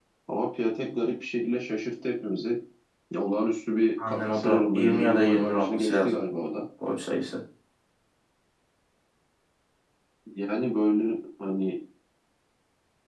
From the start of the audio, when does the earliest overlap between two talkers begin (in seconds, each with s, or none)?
4.0 s